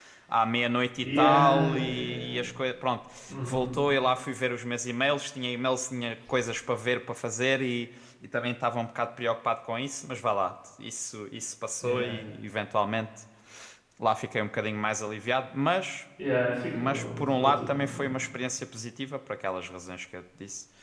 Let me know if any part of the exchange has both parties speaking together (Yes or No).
Yes